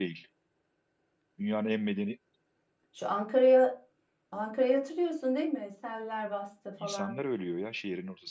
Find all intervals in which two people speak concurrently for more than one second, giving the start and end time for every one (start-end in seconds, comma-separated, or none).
none